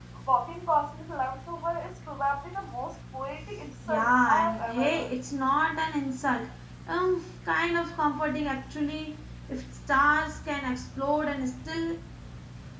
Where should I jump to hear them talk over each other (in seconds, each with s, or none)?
3.9 s